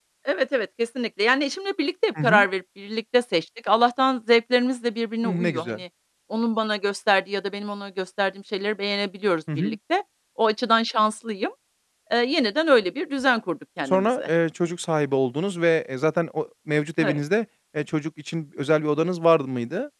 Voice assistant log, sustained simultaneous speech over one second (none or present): none